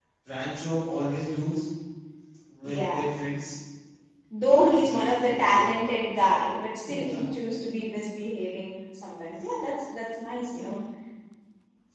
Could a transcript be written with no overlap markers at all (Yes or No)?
No